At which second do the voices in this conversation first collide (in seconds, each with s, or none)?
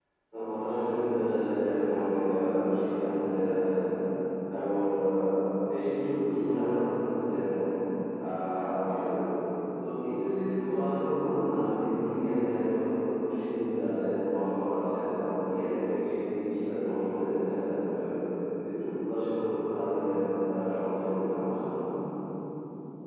none